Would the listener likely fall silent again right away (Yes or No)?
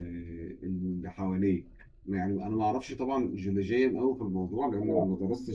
Yes